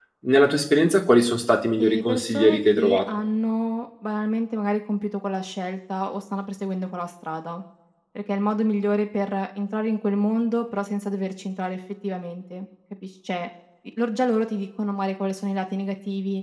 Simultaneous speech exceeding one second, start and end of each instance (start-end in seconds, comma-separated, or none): 1.8-3.0